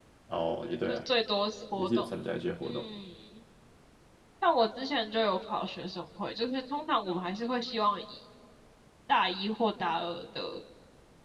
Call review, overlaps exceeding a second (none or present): none